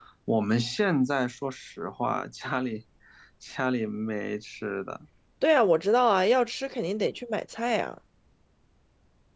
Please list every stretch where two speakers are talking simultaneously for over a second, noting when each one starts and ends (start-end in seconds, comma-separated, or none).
none